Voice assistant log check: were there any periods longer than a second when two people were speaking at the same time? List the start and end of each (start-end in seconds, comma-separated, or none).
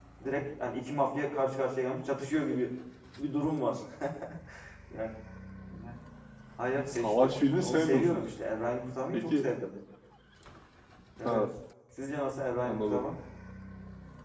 6.9-8.2